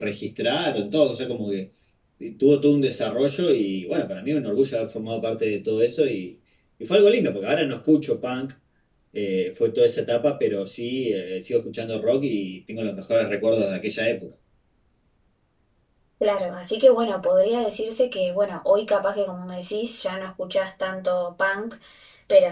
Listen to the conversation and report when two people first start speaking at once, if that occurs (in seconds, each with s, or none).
none